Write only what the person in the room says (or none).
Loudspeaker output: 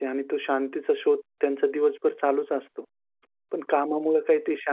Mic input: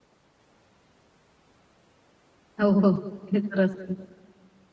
हो, हो, ते तर असतं.